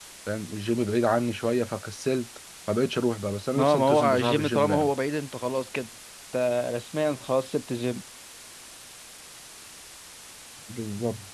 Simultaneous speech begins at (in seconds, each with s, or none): 3.5 s